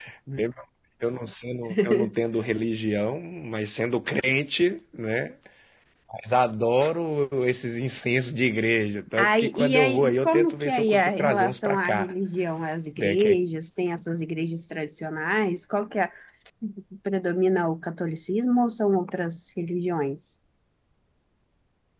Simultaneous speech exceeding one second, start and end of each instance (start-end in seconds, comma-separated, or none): 9.2-12.1